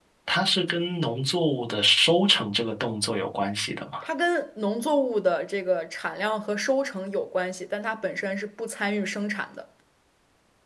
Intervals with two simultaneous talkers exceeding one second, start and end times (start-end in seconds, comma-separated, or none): none